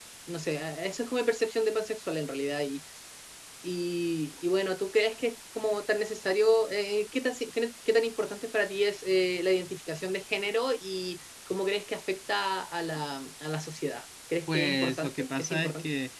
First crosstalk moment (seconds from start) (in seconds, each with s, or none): 14.5 s